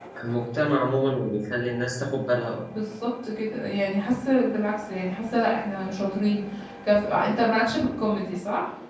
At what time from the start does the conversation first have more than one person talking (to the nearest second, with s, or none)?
none